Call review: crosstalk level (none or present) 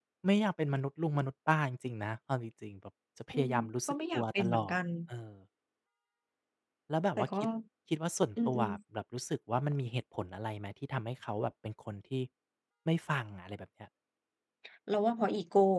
present